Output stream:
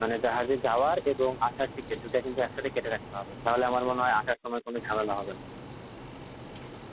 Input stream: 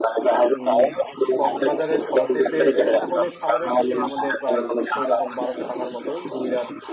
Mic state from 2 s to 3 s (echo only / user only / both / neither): both